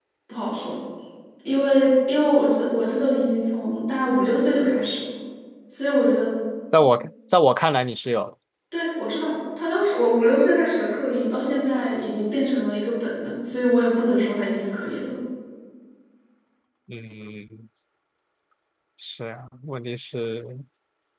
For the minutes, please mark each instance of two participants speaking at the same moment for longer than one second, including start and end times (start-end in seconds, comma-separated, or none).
none